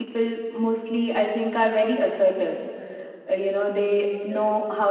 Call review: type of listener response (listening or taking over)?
listening